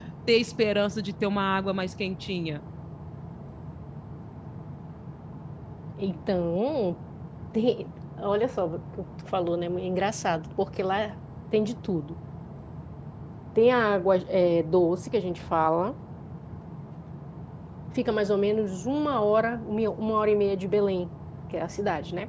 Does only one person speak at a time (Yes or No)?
Yes